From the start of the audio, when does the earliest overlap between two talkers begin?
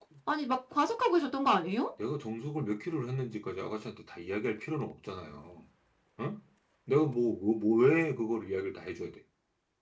none

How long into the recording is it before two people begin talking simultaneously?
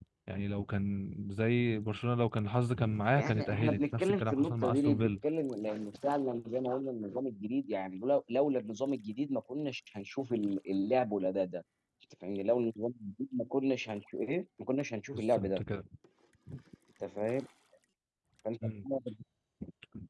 3.2 s

